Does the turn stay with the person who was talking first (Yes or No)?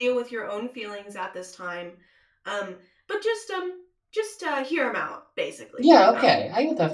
No